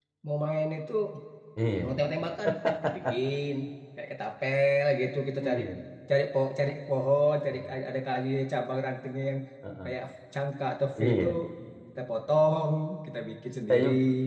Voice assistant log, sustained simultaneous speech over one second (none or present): none